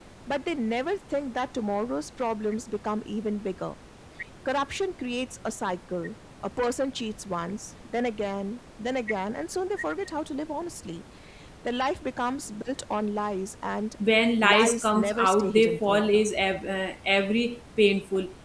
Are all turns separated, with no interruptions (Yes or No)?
No